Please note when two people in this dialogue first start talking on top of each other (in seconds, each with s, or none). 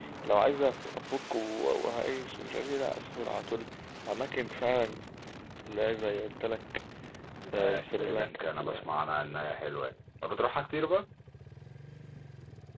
7.5 s